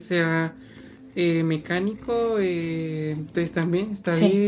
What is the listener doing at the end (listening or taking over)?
listening